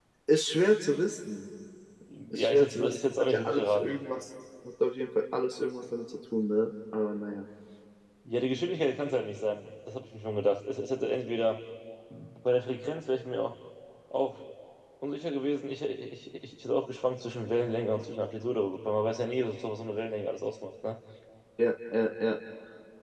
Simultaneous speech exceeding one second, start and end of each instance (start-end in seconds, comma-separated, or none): 2.3-3.9